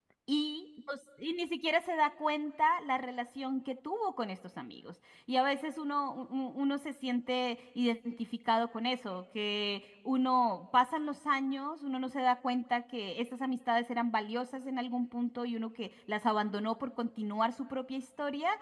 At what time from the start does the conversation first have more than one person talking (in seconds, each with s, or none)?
none